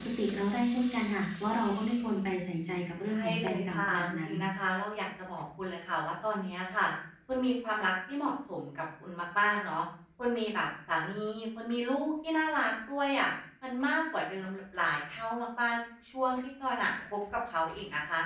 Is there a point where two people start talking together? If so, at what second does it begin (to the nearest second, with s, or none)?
3 s